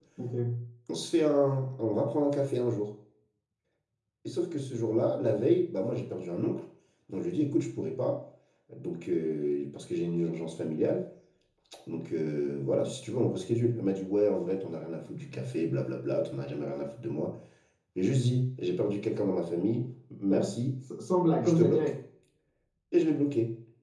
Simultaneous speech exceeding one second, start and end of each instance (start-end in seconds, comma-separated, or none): none